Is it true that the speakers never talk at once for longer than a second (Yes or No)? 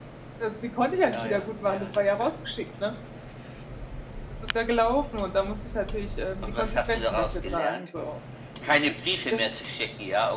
No